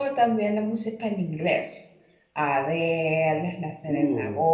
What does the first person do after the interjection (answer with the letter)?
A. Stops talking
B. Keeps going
B